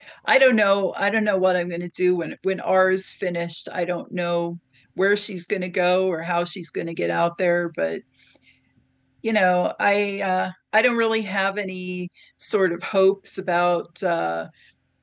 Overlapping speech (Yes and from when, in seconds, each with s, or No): No